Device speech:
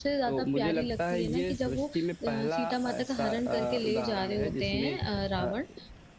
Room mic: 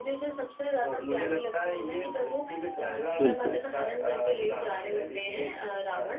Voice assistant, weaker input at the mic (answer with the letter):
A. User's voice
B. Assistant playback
B